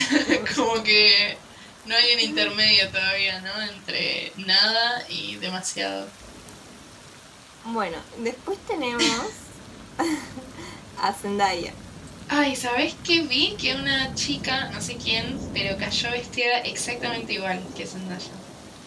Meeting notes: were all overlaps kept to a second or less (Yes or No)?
Yes